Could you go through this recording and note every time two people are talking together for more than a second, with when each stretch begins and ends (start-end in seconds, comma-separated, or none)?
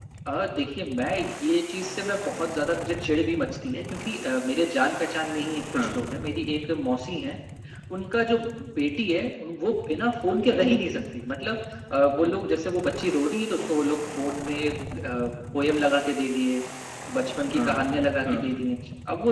none